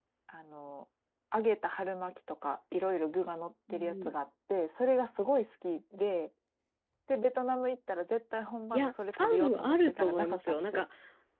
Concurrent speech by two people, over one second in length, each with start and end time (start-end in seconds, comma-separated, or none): 8.7-10.8